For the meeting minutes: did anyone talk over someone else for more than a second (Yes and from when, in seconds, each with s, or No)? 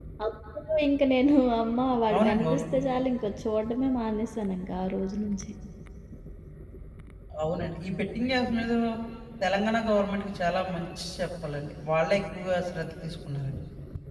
No